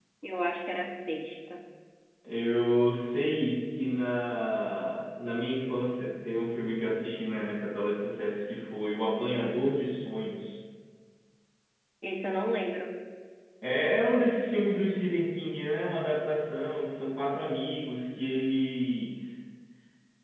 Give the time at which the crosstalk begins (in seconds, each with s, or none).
none